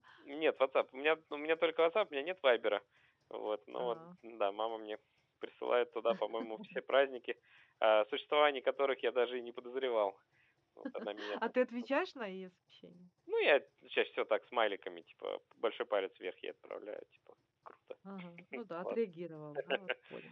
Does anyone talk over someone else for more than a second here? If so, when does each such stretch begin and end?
none

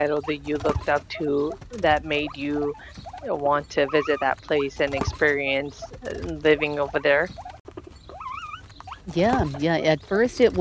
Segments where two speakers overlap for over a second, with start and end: none

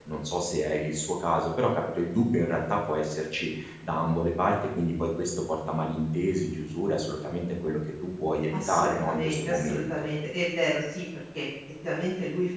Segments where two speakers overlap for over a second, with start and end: 8.5-9.8

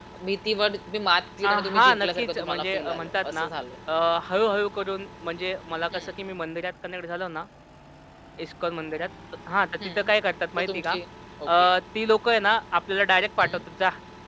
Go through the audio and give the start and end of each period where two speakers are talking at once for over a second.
1.4-3.5

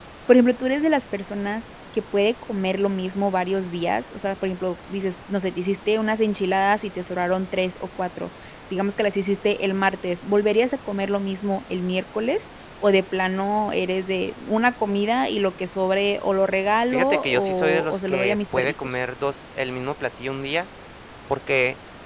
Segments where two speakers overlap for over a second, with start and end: 16.9-18.7

